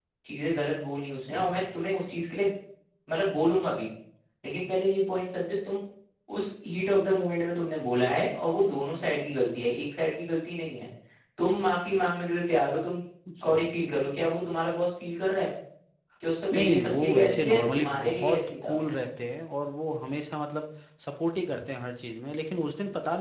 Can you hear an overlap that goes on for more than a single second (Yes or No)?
Yes